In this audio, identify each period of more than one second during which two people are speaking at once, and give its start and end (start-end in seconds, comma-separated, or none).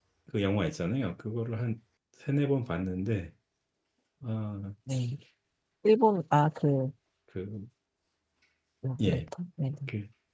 none